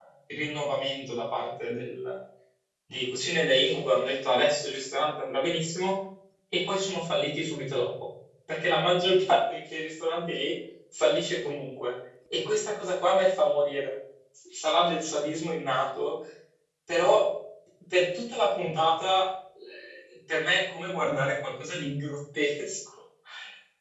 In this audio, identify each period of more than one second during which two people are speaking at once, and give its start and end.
none

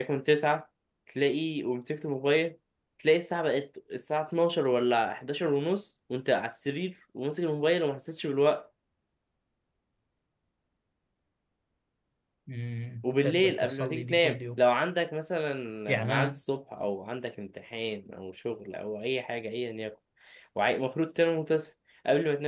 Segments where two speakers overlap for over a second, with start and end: 13.0-14.6

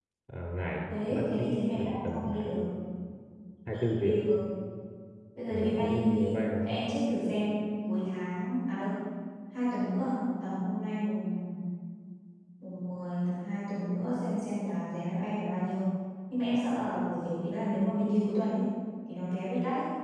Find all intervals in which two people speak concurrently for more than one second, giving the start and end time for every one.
1.1-2.5, 5.5-6.7

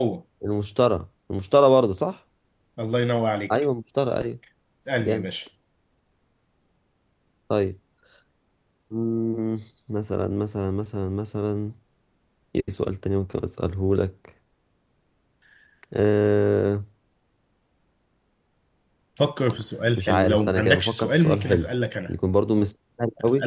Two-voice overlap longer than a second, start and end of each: 20.0-21.6

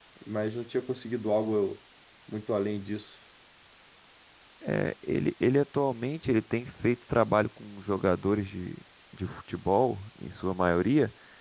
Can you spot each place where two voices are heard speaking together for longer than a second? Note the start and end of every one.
none

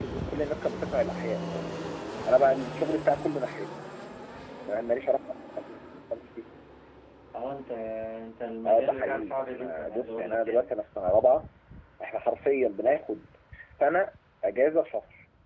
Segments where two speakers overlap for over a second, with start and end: 8.7-10.7

